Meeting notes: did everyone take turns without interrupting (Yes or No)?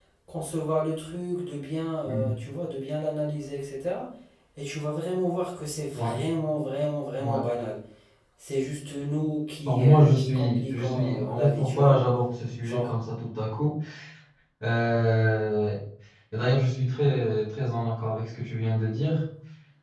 No